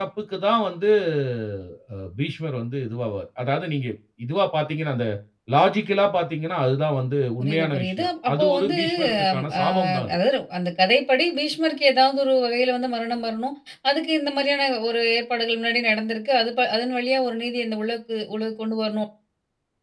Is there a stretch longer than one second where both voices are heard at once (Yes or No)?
Yes